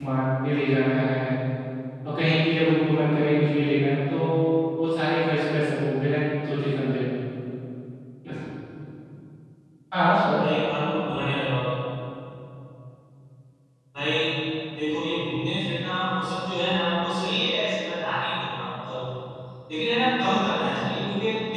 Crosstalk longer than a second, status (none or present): none